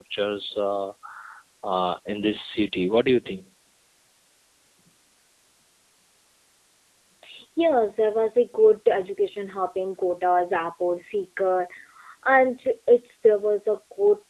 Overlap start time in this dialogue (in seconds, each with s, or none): none